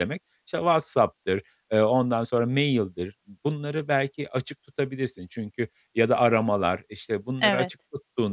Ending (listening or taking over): listening